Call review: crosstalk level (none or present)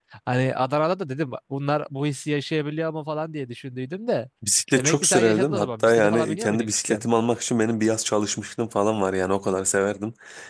present